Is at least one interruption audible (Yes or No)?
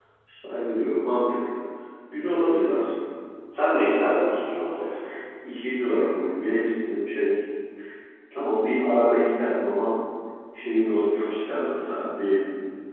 No